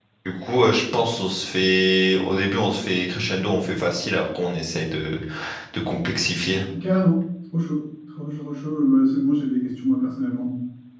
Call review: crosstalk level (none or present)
none